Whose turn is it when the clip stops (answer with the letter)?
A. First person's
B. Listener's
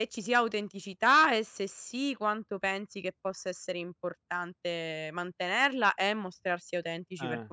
B